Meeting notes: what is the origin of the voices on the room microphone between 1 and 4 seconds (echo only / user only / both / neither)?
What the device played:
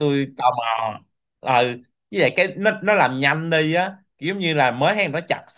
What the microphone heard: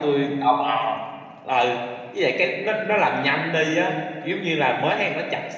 echo only